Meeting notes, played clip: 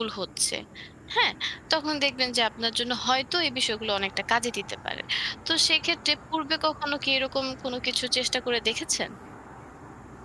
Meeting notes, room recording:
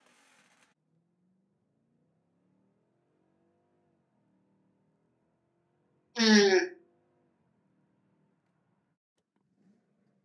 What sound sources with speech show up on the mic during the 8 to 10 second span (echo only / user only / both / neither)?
neither